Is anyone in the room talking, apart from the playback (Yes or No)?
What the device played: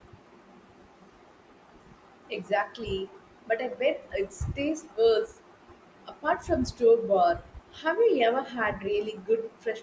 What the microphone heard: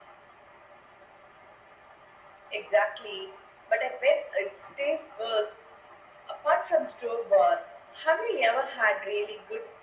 No